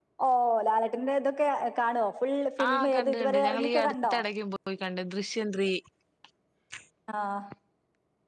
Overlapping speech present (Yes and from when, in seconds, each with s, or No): Yes, from 2.6 s